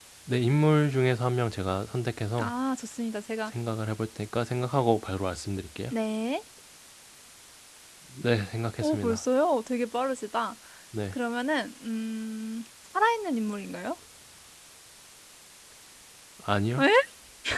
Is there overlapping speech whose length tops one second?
No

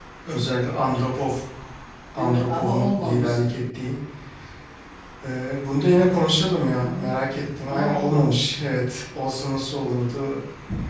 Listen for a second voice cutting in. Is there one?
Yes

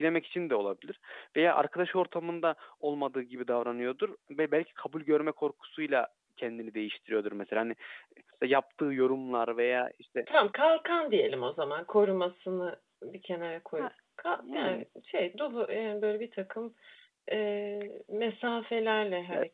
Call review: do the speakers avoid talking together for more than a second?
Yes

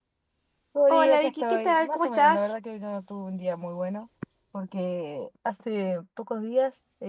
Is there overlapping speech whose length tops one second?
Yes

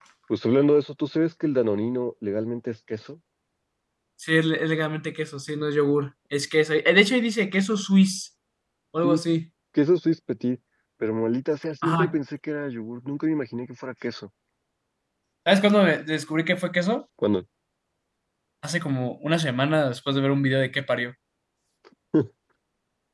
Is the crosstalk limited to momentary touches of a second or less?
Yes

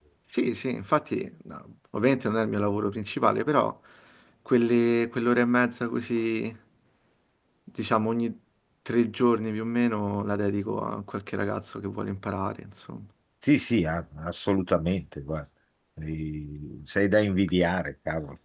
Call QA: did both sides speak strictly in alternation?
Yes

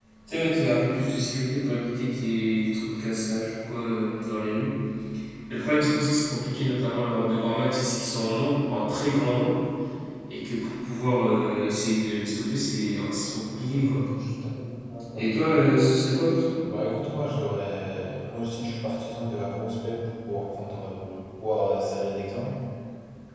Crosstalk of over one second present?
No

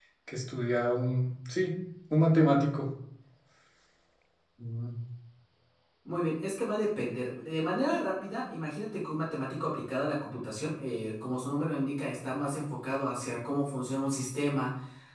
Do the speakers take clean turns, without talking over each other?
Yes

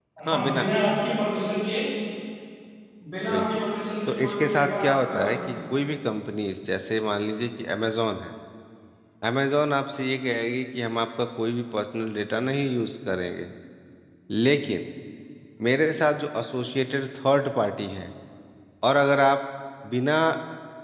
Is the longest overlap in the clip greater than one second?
Yes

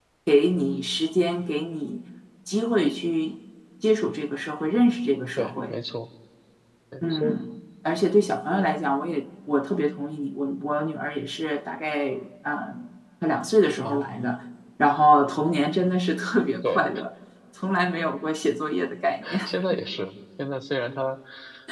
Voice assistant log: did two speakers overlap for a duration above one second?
No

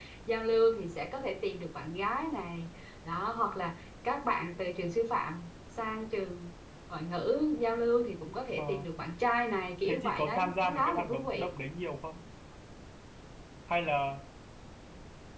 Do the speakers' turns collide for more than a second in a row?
Yes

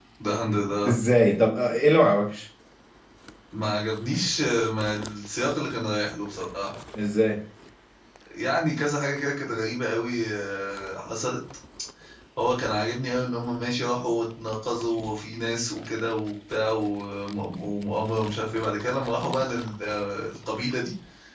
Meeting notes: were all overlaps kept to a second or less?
Yes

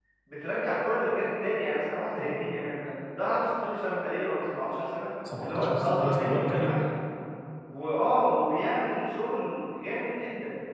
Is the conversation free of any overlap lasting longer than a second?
No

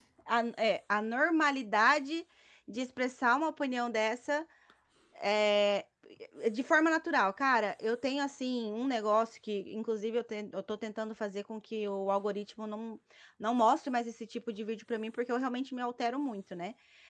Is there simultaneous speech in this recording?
No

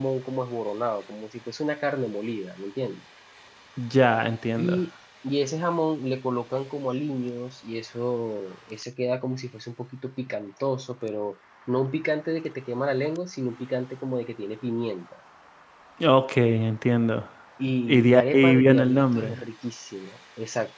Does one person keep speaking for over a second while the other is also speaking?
Yes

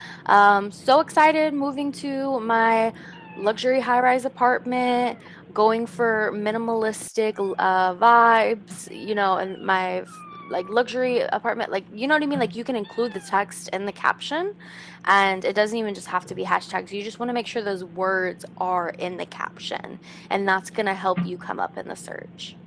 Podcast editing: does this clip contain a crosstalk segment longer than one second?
No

